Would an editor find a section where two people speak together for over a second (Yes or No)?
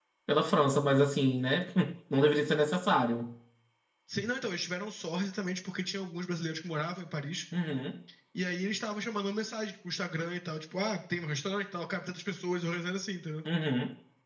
No